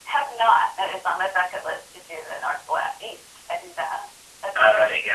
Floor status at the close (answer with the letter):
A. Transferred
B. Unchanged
A